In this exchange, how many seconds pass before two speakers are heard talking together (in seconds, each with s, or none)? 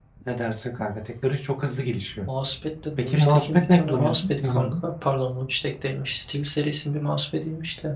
3.0 s